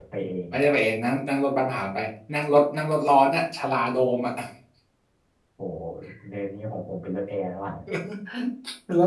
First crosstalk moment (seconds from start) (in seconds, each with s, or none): none